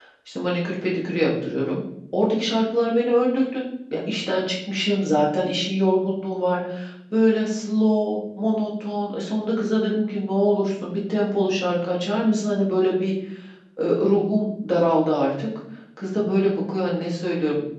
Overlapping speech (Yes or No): No